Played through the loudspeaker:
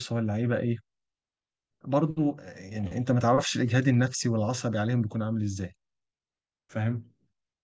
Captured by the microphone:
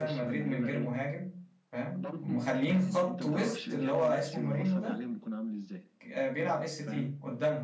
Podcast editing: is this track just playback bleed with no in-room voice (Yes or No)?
No